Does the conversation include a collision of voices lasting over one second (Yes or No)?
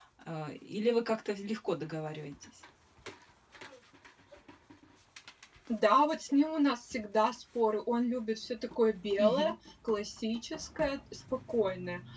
No